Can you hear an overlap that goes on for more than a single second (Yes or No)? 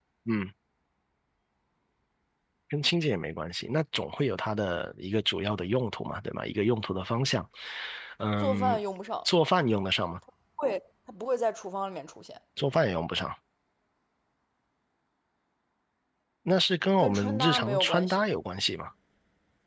Yes